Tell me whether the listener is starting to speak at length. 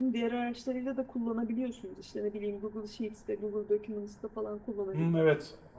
Yes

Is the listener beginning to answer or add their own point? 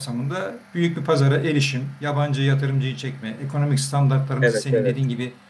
No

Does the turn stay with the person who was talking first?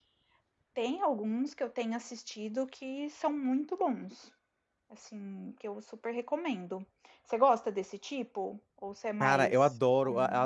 No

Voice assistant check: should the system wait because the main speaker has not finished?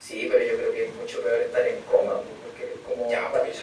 No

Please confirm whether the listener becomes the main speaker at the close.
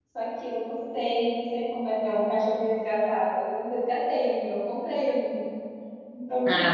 Yes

